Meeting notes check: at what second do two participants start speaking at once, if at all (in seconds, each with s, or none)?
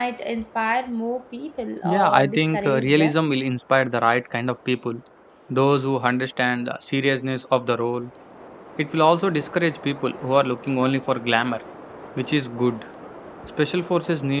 1.8 s